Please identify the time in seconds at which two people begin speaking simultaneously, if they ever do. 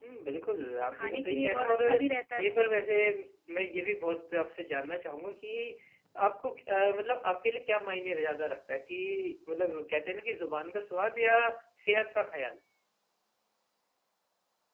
0.8 s

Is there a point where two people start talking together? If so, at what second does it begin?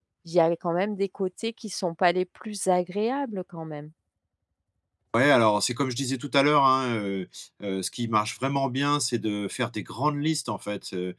none

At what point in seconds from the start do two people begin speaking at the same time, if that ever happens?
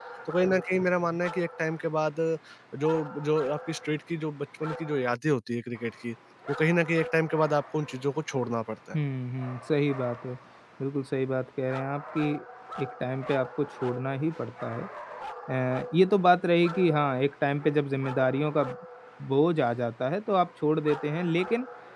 none

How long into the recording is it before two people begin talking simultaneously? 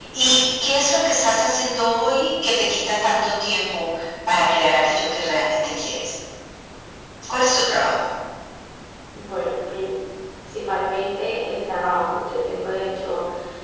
none

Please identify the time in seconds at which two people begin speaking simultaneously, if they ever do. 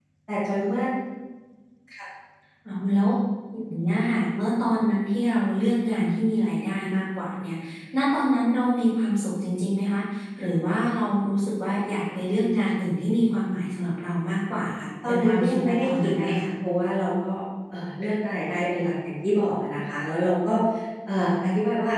15.0 s

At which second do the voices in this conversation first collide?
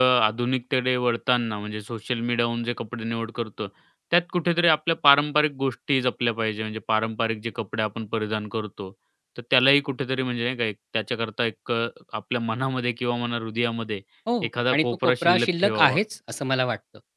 14.7 s

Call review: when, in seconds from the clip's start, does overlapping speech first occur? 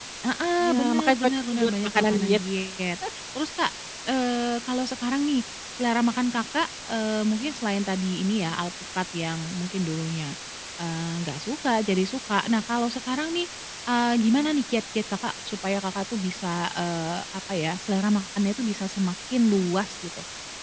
0.6 s

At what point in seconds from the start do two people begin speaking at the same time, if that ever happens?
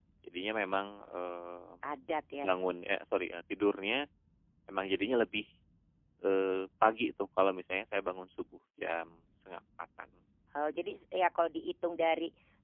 none

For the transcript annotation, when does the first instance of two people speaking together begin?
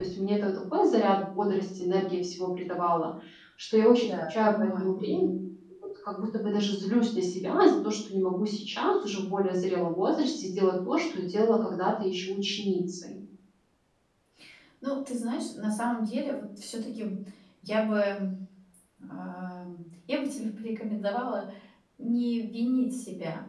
4.0 s

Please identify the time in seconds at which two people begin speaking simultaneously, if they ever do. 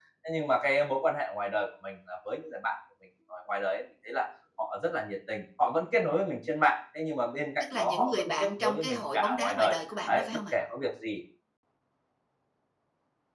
7.6 s

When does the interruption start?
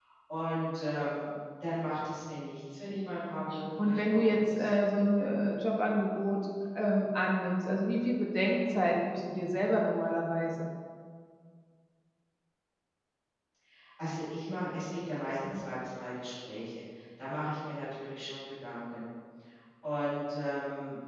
3.3 s

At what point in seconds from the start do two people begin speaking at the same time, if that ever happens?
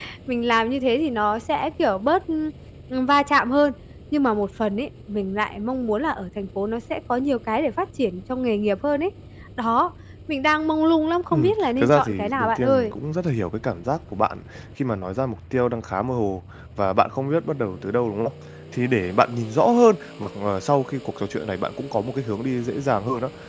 11.3 s

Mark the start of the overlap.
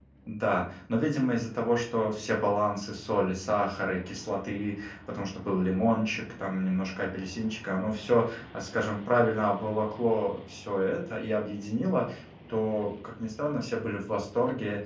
none

